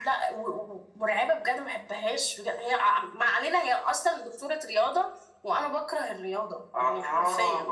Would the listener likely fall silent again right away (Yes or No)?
No